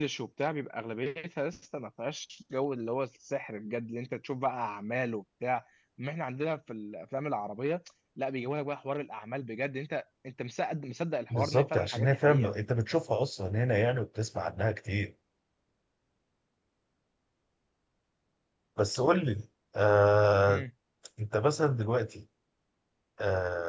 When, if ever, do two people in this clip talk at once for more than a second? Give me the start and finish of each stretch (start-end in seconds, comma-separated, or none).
11.3-12.5